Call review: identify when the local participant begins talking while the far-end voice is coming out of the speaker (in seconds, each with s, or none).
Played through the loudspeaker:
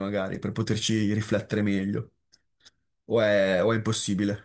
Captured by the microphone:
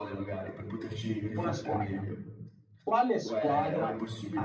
1.3 s